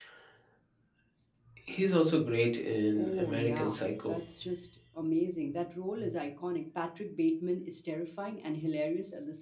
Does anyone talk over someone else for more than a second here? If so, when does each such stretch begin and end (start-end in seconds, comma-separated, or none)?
2.9-4.2